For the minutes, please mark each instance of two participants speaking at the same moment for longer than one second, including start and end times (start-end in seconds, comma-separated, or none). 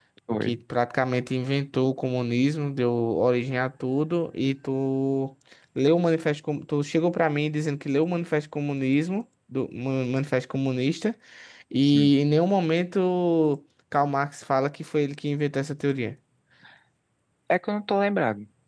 none